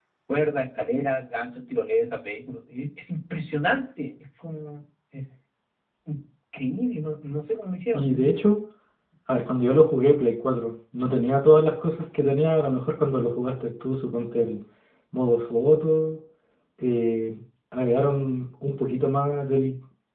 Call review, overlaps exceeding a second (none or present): none